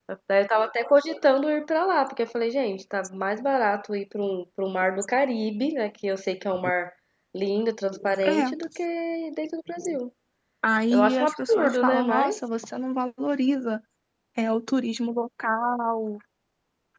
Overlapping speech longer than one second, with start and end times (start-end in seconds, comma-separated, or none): 10.9-12.4